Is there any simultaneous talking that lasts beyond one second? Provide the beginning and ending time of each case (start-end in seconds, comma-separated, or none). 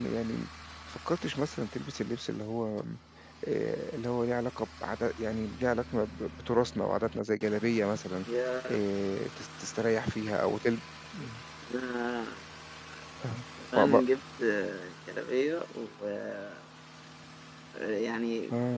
none